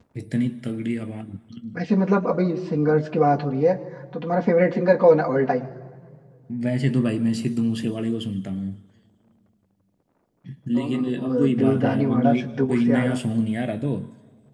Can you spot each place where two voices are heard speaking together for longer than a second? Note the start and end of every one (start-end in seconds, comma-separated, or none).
10.8-13.2